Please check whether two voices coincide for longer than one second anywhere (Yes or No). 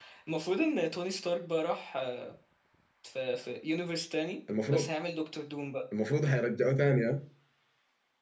No